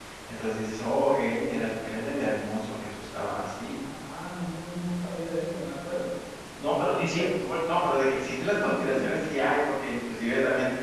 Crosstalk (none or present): none